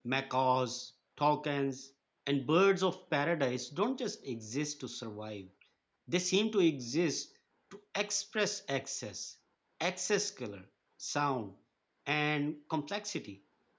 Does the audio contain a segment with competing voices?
No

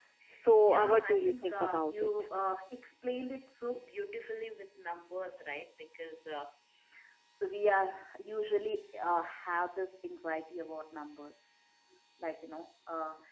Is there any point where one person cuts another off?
Yes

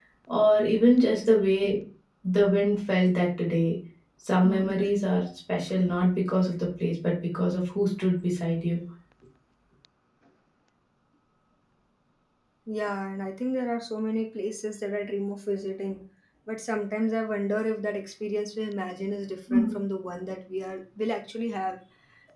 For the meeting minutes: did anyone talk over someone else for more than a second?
No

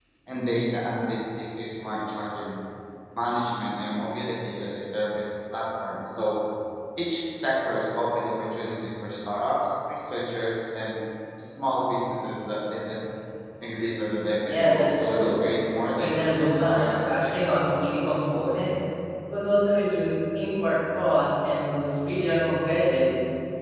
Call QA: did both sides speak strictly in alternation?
No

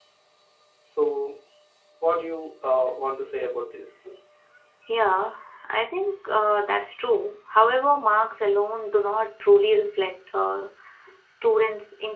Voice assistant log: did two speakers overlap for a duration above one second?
No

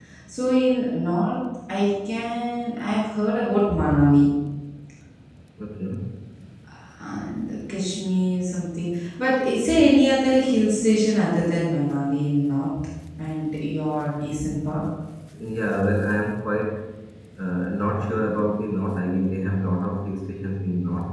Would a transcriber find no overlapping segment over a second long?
Yes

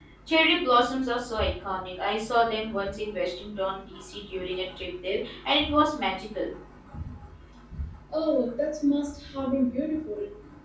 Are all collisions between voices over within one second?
Yes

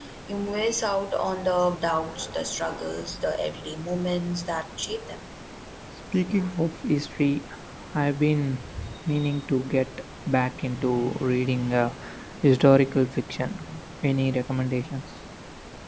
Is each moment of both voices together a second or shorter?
Yes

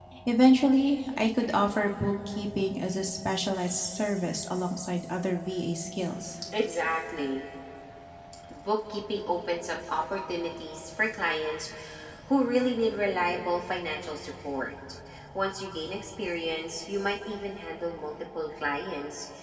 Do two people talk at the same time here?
No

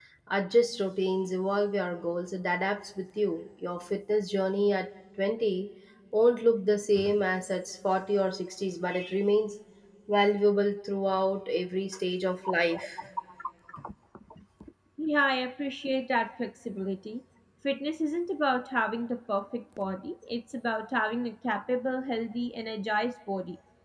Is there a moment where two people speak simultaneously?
No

